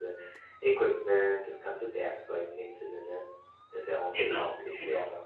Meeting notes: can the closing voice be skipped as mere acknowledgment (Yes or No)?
No